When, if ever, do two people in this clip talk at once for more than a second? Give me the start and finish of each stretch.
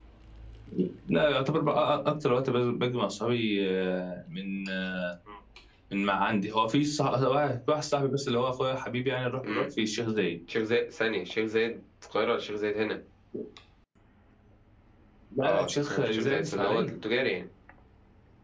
15.4-16.9

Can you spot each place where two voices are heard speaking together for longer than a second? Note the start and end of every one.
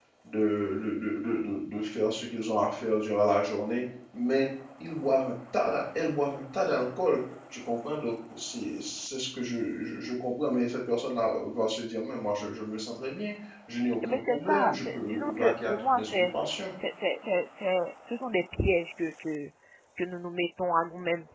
14.1-16.1

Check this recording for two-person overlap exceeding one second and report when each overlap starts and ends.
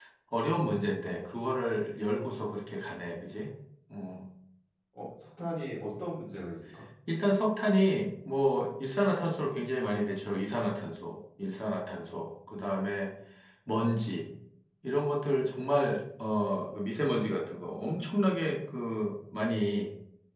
none

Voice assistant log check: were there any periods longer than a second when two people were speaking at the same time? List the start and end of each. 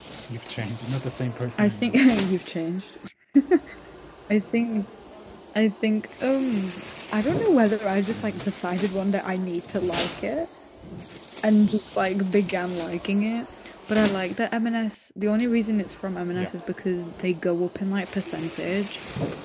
none

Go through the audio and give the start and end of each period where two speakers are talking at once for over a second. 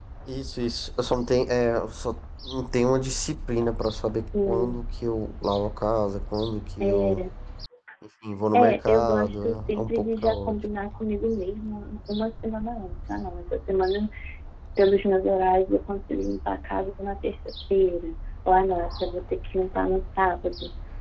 8.5-10.6

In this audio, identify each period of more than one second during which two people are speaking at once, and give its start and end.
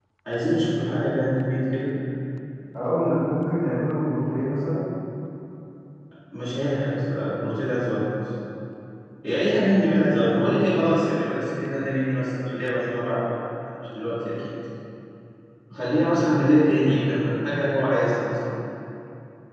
16.3-18.5

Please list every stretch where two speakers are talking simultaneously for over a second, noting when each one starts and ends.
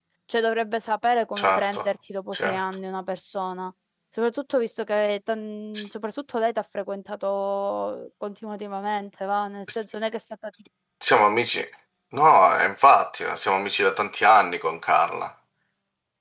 none

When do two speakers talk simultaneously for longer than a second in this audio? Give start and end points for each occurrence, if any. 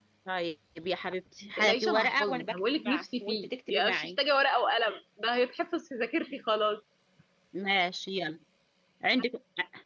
1.6-4.1

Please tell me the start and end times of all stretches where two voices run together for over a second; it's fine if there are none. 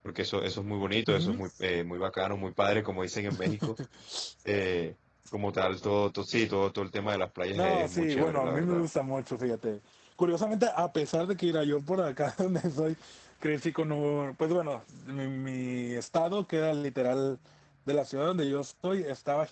7.5-8.8

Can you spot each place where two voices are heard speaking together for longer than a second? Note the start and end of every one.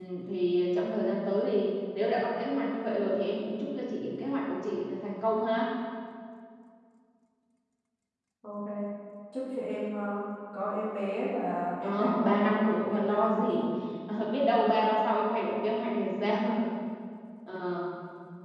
11.8-13.6

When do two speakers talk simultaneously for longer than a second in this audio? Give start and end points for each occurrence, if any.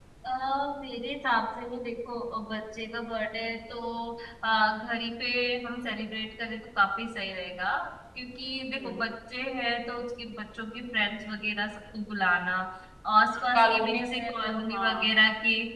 13.4-15.1

